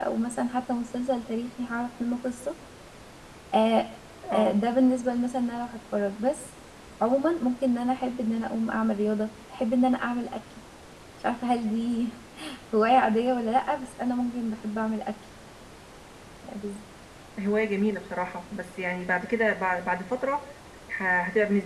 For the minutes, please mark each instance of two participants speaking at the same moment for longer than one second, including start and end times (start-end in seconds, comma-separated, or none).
none